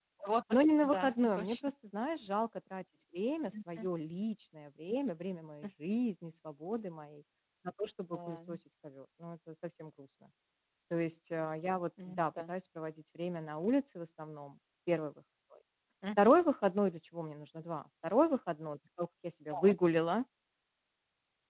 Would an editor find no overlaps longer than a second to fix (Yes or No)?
No